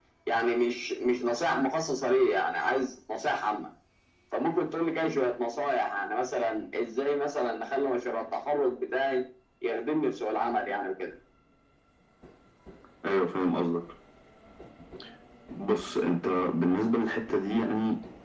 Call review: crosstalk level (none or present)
none